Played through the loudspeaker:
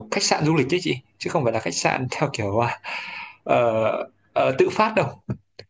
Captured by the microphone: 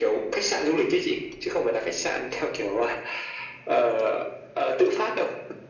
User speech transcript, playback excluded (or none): none